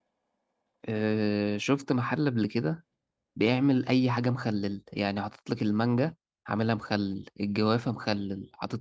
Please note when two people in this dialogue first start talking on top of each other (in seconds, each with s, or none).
none